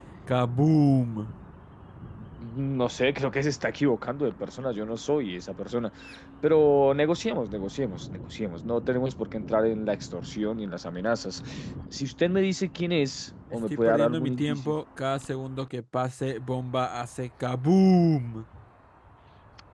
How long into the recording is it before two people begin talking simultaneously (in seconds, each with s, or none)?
13.5 s